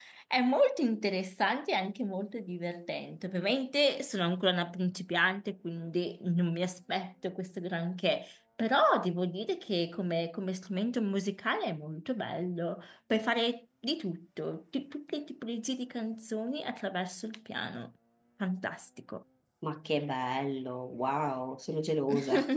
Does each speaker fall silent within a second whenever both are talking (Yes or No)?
Yes